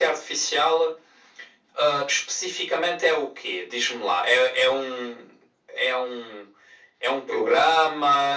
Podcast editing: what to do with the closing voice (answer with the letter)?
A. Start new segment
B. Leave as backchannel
B